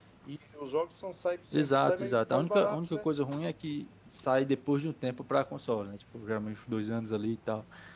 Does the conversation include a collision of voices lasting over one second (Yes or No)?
Yes